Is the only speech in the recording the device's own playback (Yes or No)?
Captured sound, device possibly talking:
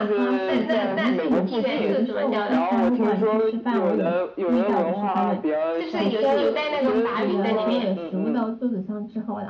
No